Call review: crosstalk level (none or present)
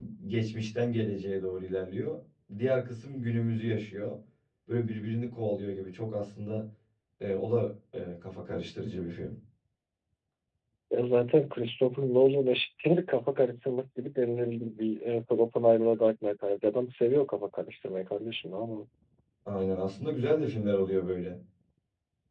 none